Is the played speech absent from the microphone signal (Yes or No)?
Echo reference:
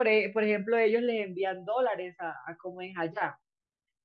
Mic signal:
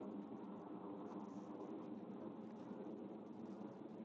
Yes